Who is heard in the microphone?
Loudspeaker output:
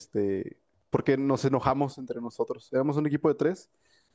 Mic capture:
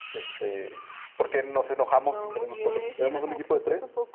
both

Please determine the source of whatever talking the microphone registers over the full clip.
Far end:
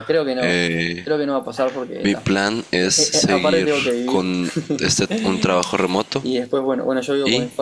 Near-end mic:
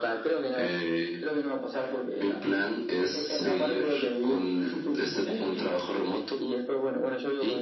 echo only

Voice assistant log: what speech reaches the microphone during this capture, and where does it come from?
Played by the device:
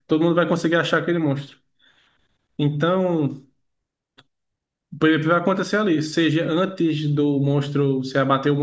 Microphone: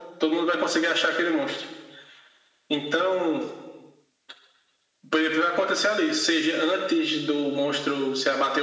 echo only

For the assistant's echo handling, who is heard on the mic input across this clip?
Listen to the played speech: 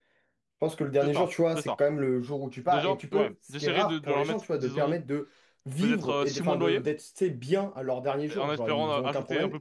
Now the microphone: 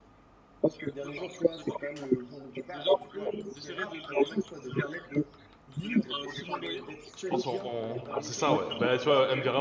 both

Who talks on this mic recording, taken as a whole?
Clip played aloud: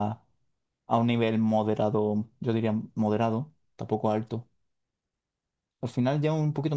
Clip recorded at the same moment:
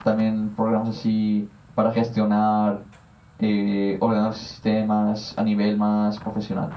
user only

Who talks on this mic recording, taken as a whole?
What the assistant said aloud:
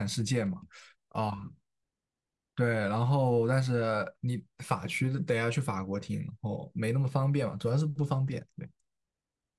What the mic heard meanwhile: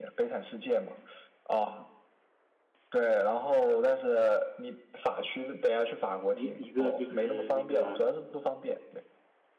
both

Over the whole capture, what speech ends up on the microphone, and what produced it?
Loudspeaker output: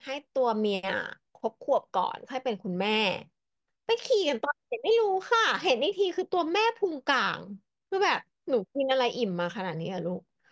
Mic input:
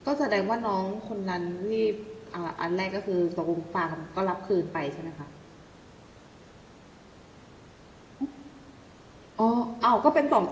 user only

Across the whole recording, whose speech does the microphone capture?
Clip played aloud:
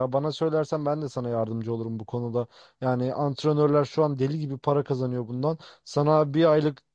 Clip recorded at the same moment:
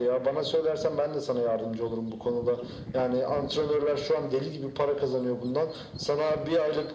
echo only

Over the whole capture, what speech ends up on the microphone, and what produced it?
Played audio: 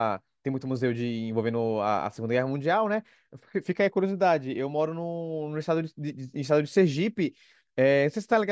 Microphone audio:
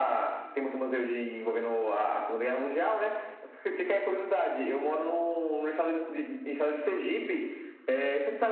echo only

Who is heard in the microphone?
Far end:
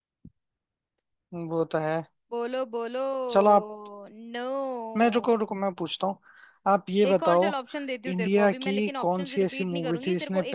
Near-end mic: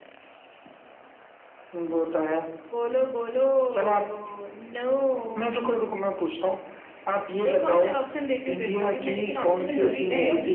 both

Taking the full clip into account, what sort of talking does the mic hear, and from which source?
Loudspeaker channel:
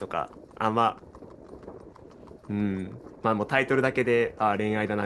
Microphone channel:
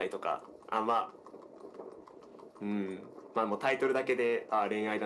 echo only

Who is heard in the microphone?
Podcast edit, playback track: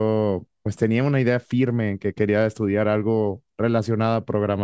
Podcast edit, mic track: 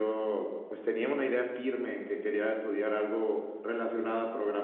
echo only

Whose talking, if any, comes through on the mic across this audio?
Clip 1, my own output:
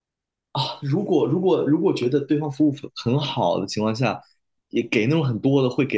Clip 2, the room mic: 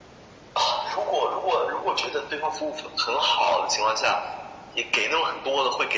echo only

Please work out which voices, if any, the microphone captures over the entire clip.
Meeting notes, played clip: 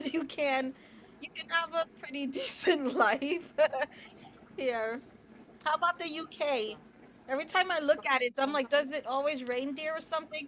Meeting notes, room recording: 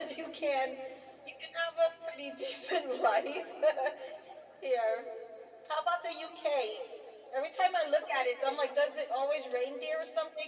echo only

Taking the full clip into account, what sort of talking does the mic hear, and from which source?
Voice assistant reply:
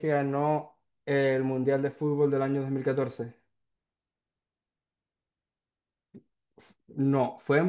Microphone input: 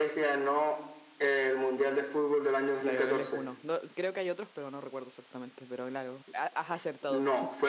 both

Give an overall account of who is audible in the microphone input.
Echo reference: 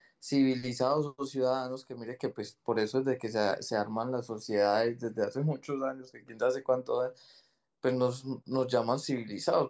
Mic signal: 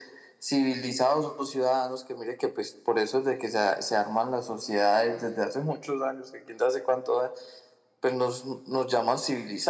echo only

